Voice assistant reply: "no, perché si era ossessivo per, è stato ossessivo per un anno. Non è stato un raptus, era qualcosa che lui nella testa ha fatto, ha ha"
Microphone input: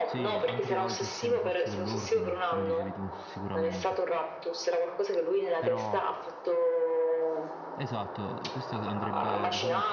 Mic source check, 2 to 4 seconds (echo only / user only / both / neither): both